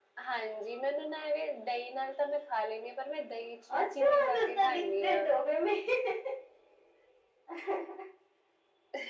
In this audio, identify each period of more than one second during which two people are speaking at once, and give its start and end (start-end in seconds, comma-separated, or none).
3.8-5.2